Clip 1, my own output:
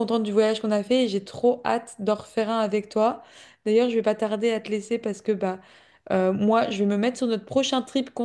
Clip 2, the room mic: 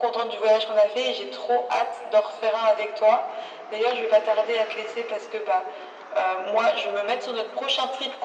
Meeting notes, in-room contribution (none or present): none